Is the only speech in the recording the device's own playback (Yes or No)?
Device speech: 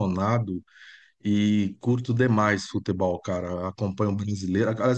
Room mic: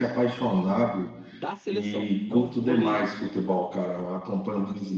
No